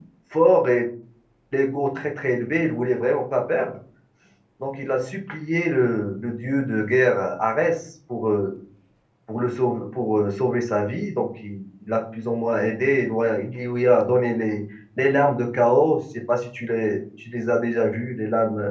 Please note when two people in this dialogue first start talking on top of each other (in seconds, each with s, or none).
none